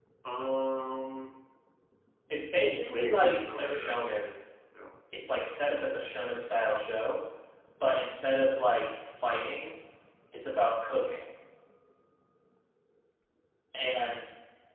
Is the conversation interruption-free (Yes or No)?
No